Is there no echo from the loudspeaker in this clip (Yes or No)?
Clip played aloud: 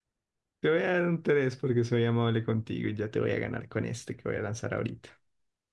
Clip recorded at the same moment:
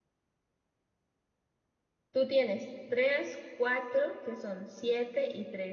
Yes